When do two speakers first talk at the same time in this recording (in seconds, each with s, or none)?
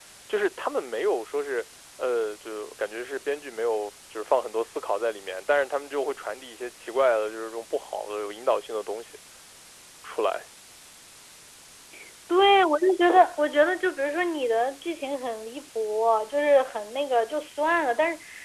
none